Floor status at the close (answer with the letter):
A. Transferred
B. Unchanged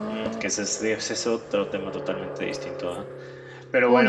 B